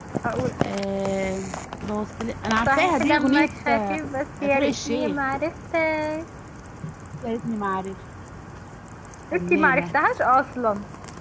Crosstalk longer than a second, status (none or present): present